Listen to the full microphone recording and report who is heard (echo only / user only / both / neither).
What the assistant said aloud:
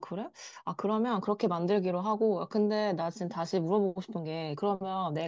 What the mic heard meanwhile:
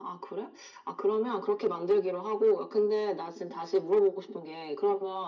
echo only